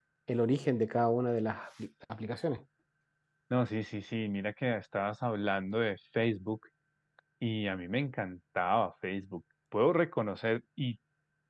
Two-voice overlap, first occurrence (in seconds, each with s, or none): none